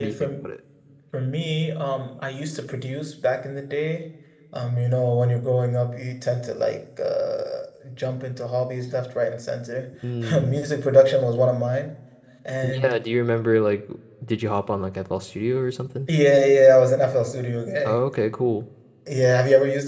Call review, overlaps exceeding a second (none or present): none